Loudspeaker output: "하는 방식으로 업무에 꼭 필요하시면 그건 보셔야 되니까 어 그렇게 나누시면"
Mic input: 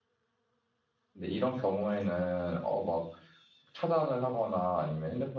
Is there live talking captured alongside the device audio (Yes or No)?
Yes